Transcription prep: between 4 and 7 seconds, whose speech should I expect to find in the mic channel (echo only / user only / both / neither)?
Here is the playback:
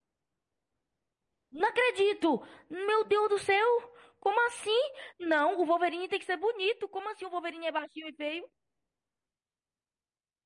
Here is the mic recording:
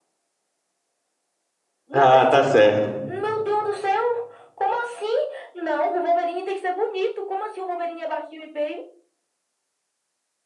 echo only